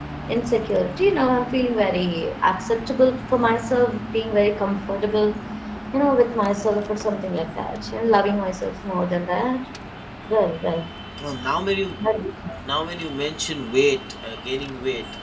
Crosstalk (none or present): none